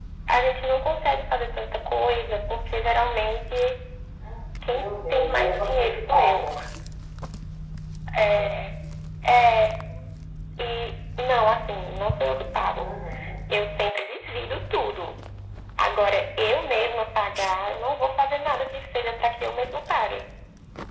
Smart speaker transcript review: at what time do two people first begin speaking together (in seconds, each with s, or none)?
4.7 s